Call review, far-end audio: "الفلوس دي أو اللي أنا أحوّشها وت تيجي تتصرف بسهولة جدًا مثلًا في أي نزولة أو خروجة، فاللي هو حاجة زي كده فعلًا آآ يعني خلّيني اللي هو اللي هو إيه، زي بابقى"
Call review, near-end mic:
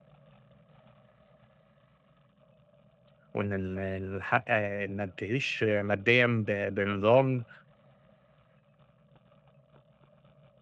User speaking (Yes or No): Yes